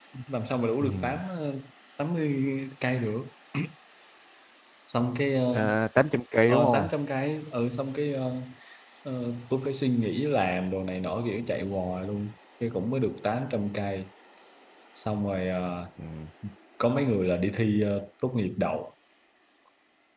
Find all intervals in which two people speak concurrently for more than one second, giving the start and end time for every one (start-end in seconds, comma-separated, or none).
none